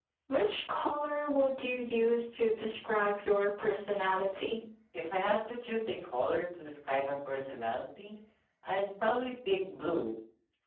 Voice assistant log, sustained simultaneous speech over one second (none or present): none